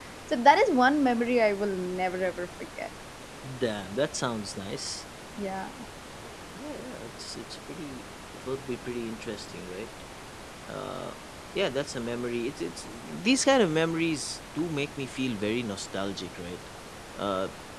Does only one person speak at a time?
Yes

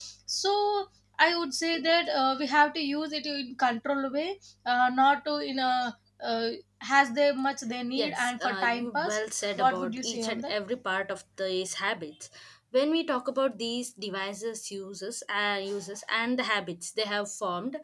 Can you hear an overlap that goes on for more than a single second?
Yes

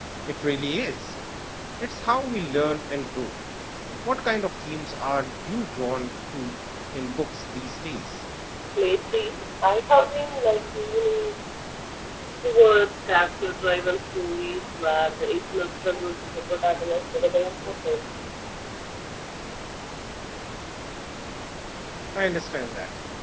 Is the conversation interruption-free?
Yes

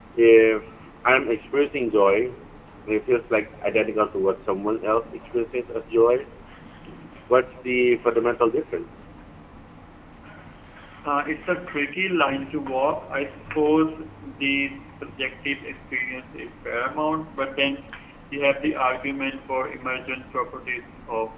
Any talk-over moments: No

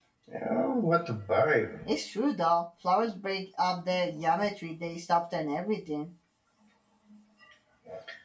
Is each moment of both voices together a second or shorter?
Yes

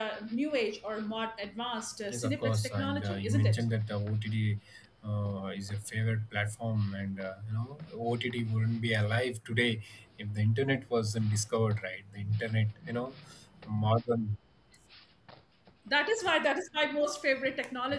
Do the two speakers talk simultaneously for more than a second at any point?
Yes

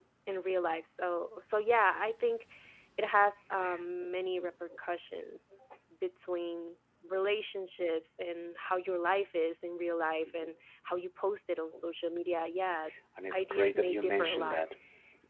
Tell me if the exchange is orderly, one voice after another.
No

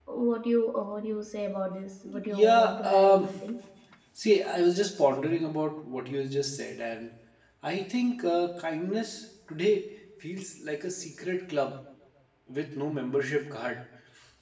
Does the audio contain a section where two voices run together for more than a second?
Yes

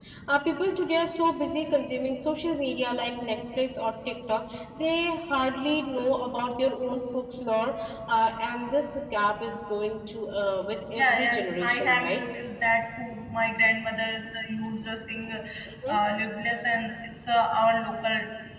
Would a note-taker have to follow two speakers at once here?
Yes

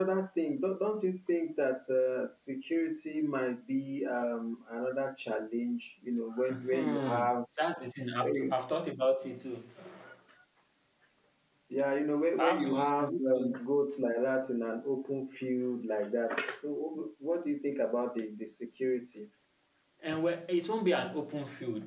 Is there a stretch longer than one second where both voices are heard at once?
Yes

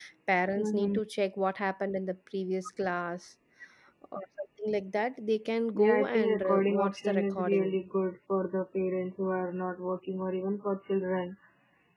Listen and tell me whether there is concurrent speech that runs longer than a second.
Yes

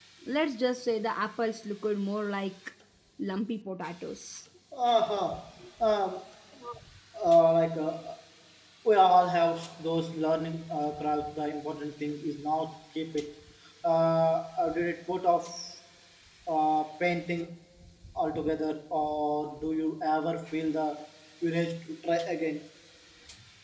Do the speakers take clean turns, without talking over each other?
Yes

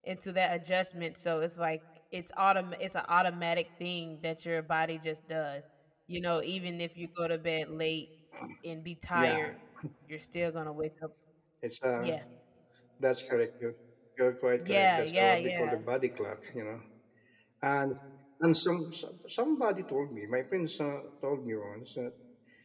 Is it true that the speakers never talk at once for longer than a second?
No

